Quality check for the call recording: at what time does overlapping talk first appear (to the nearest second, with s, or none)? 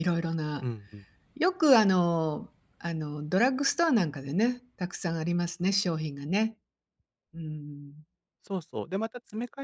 none